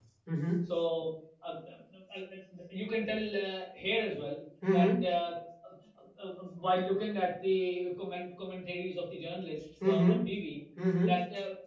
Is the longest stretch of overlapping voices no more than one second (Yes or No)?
Yes